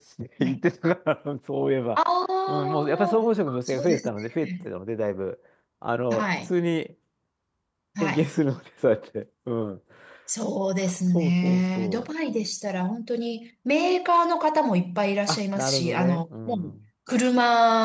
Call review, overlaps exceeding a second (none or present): present